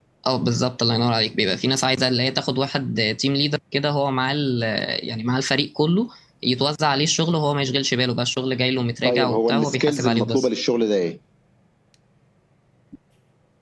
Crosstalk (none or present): present